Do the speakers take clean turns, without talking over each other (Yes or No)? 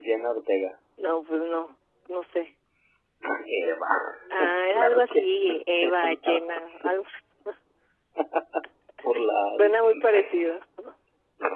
No